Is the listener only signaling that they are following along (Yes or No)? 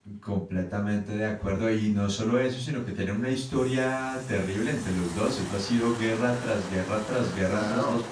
No